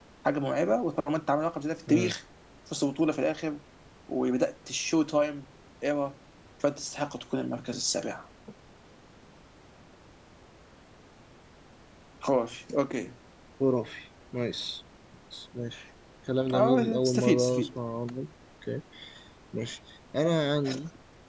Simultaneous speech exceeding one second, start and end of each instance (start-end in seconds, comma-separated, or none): 16.5-17.8